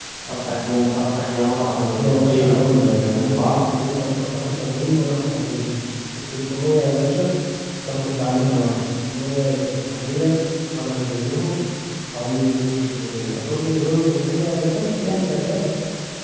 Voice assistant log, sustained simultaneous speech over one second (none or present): present